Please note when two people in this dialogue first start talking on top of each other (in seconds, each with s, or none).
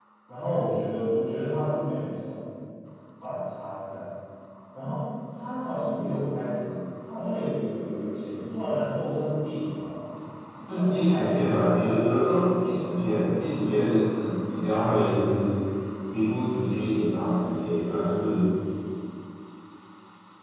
10.6 s